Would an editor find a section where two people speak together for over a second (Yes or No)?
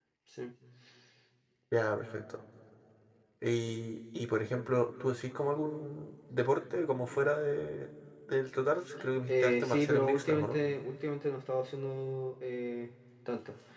Yes